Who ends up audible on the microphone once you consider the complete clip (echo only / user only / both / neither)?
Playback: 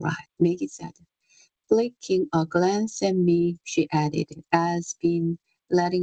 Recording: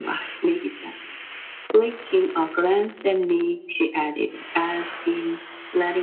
echo only